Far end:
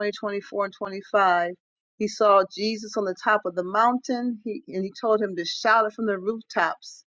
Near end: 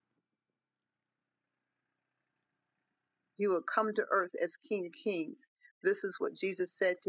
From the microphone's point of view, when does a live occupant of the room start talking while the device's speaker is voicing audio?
3 s

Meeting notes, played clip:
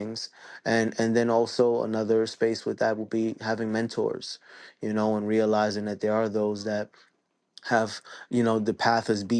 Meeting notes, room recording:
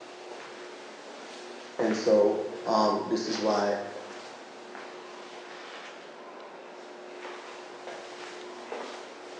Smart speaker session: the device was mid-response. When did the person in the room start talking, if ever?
2 s

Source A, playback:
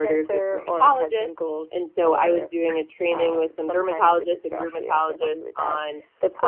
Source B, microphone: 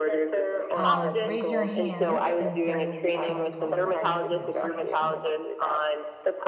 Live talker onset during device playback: 1 s

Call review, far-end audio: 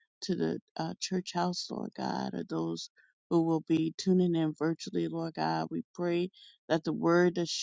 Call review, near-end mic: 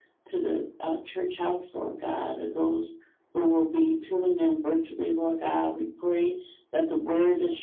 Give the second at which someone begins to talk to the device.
none

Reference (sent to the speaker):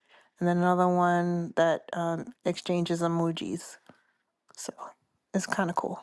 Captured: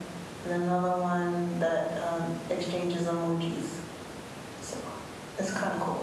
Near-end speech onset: none

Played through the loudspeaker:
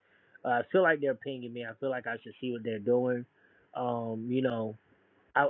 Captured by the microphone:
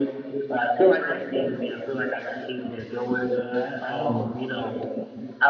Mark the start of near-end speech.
2 s

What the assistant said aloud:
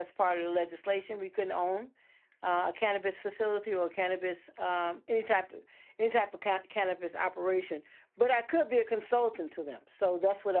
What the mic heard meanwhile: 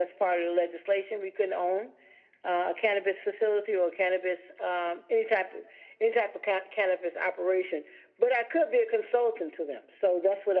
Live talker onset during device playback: none

